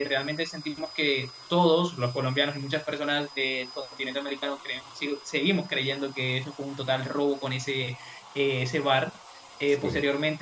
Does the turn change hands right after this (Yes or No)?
No